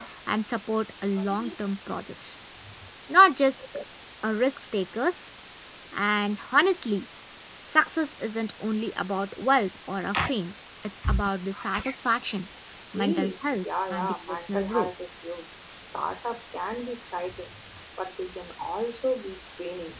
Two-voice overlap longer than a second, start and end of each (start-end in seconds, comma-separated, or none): 12.9-14.9